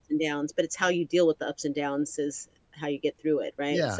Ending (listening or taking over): taking over